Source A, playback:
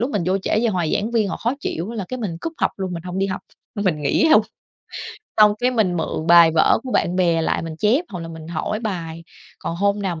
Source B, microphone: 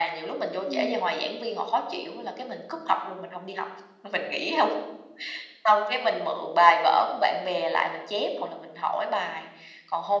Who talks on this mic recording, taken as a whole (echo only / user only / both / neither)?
both